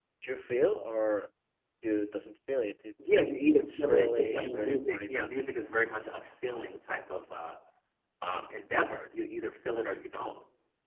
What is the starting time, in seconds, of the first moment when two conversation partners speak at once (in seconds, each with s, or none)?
3.0 s